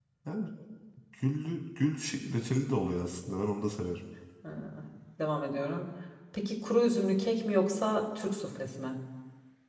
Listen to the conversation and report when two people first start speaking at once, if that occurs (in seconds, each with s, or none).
none